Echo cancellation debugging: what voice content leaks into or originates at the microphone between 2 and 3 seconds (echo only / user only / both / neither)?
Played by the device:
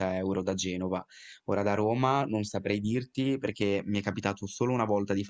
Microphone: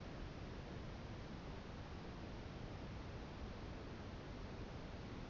neither